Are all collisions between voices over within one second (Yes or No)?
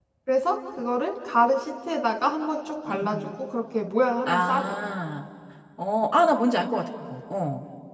Yes